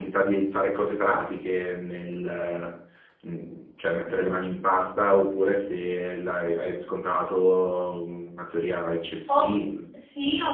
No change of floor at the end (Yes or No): No